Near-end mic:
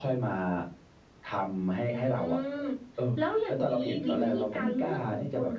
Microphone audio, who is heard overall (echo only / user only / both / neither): both